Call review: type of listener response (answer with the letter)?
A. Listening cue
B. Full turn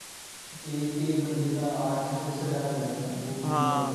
B